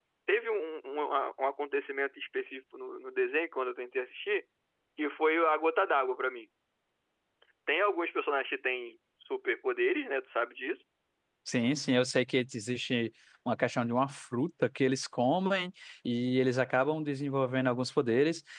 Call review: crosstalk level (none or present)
none